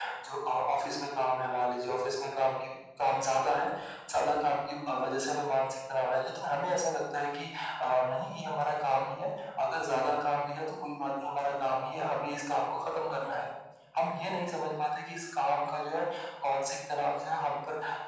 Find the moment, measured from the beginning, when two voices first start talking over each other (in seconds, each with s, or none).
none